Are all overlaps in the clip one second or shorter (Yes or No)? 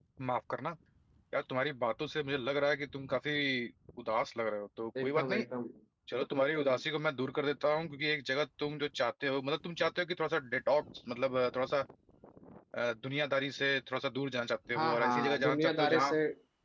No